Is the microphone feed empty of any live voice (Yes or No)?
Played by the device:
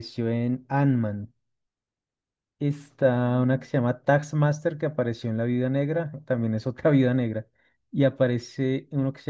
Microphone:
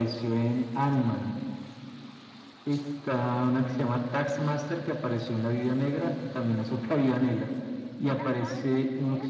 No